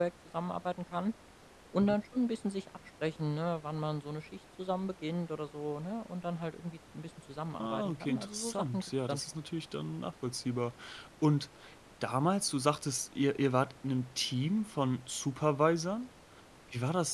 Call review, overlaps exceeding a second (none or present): present